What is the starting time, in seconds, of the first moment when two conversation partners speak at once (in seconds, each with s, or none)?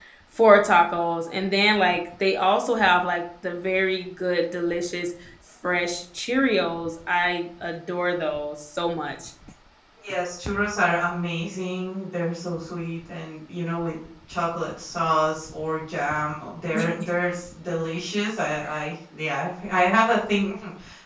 none